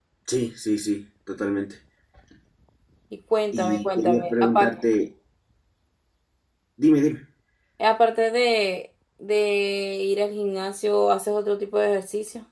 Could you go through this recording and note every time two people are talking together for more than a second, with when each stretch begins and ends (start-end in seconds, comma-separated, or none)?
3.5-4.7